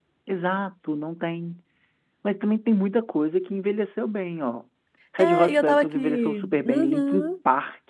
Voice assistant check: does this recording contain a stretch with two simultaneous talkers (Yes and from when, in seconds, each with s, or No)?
Yes, from 5.2 s